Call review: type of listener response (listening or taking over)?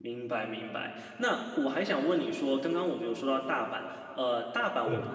listening